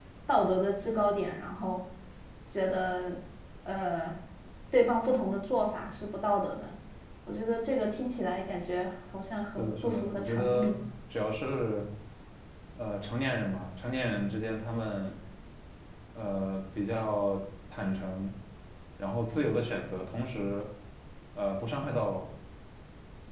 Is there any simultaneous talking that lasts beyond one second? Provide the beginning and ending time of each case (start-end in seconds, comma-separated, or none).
9.6-10.8